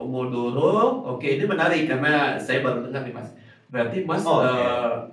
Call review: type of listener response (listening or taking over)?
listening